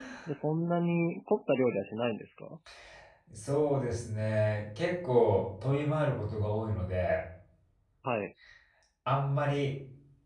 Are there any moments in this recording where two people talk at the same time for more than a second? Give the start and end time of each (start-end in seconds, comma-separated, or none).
none